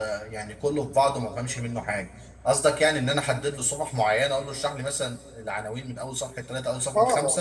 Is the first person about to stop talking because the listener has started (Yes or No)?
Yes